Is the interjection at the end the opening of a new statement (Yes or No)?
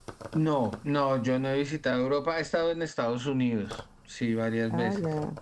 Yes